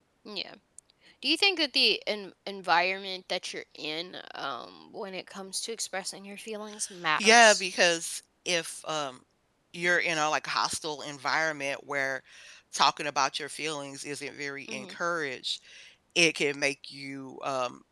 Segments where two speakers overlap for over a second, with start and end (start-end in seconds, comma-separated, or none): none